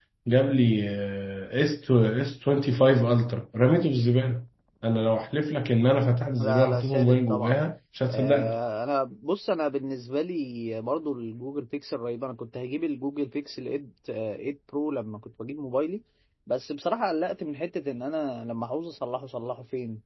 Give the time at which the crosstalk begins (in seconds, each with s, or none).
6.4 s